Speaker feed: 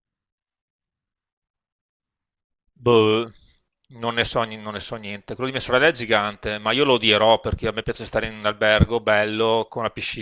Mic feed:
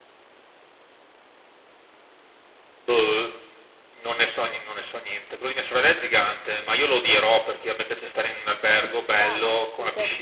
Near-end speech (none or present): present